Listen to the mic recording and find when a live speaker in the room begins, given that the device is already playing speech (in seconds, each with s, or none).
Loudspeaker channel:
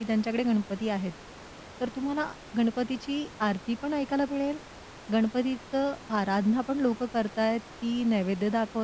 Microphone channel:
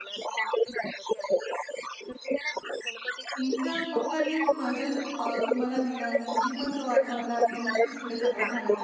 3.4 s